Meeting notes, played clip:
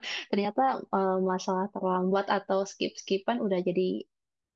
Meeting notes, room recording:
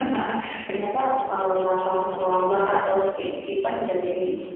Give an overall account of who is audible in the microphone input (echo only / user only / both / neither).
echo only